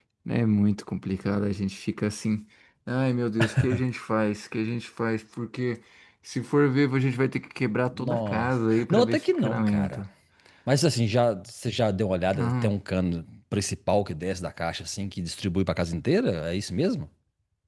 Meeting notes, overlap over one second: present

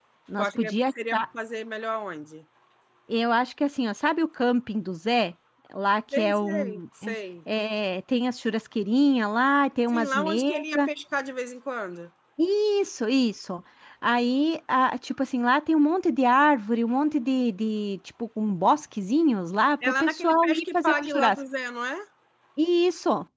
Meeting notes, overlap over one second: present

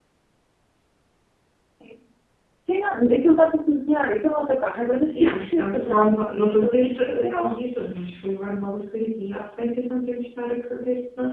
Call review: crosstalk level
present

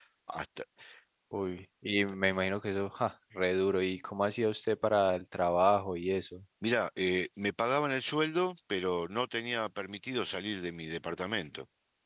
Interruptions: none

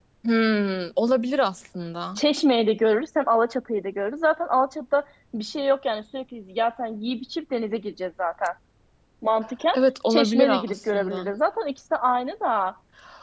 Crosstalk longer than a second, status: present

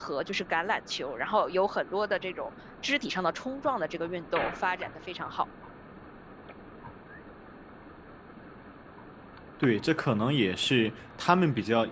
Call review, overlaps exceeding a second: none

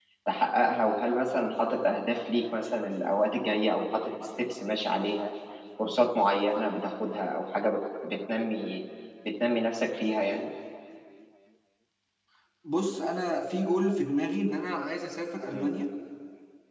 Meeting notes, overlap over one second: none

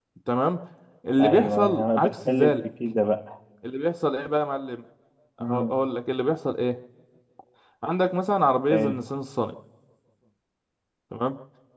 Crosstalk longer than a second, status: present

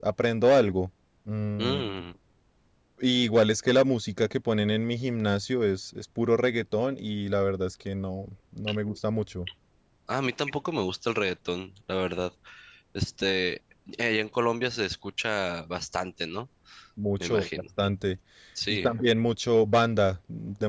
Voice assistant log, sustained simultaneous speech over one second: none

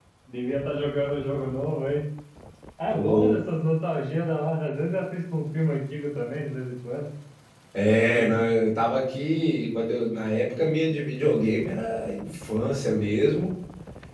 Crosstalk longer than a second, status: none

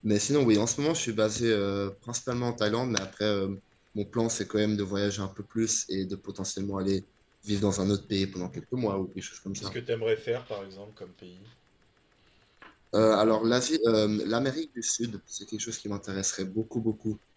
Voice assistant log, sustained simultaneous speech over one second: none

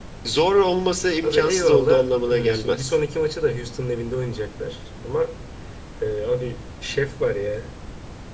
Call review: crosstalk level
present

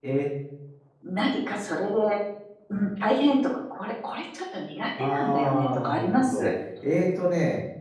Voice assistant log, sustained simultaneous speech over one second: present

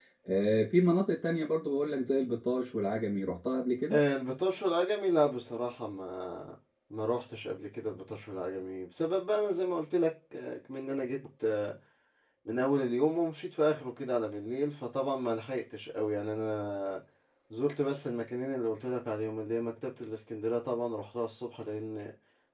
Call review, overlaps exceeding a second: none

